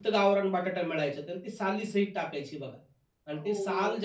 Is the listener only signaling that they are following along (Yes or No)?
Yes